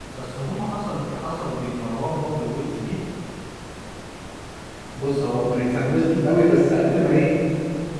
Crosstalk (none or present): none